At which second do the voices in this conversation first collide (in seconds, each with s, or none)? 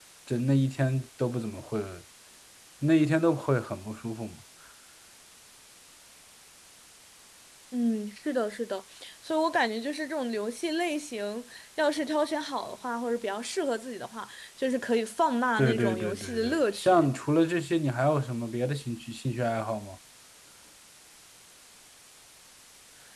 15.6 s